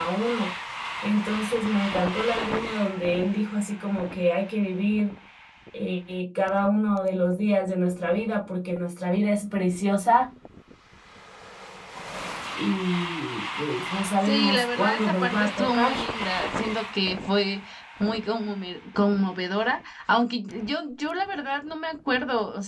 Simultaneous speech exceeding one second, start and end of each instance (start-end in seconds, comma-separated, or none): 14.2-15.9